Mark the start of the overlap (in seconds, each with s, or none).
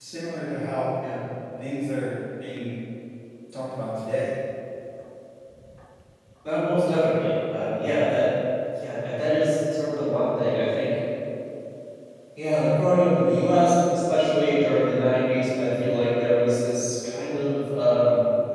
none